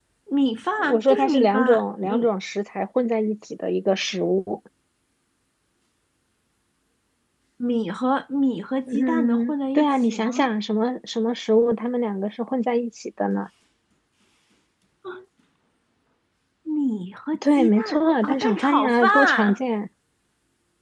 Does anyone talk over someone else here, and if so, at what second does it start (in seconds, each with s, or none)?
0.8 s